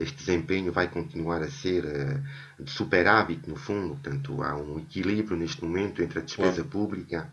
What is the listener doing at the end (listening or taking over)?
listening